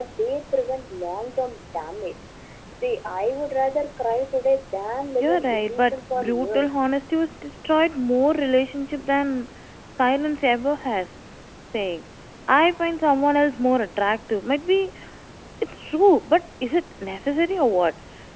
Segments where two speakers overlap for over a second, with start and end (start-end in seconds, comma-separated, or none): 5.2-6.9